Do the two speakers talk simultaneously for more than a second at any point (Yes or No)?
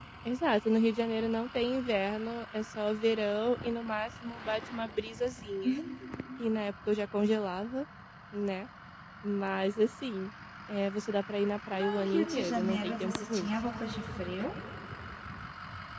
Yes